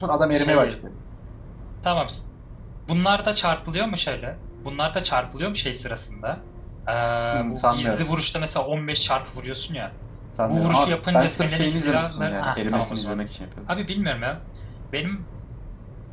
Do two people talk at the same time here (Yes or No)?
Yes